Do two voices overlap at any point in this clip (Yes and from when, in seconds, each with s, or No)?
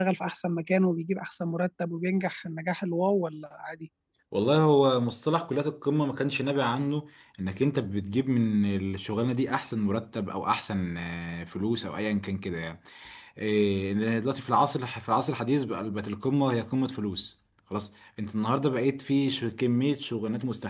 No